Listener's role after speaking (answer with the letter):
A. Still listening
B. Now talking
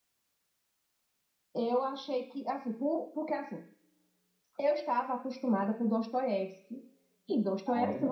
A